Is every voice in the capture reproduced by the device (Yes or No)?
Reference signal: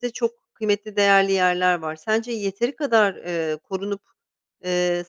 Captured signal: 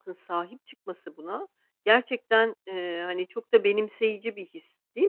No